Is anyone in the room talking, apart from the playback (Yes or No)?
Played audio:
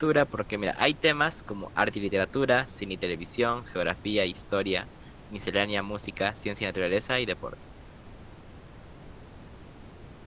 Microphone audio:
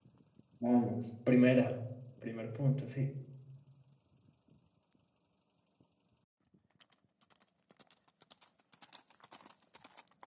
Yes